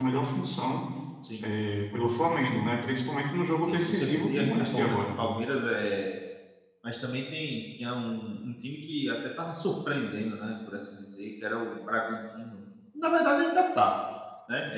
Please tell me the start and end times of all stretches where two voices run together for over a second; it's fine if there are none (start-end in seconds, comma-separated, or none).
3.7-5.0